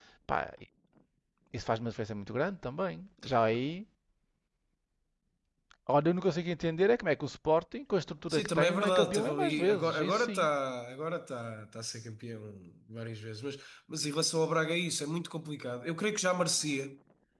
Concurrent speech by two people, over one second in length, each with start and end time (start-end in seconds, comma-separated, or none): 8.3-10.5